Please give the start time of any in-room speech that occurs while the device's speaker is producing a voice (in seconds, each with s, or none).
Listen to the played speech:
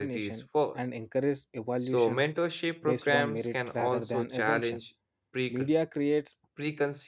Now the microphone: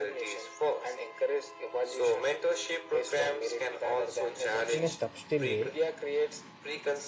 4.7 s